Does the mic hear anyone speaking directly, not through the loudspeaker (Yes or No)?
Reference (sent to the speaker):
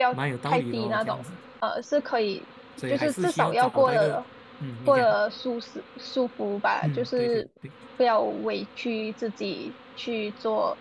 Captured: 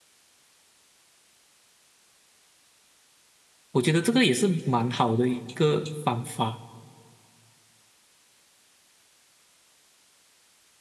Yes